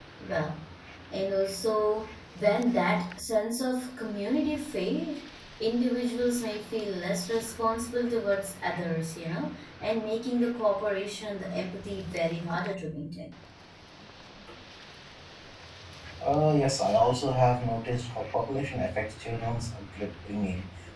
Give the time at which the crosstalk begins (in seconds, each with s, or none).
none